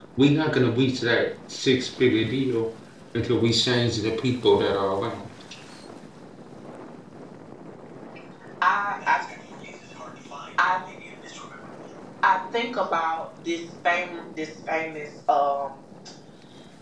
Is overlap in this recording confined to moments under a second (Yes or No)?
Yes